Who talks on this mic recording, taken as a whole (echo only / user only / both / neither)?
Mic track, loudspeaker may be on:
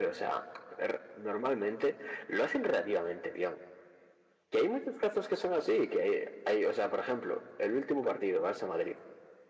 echo only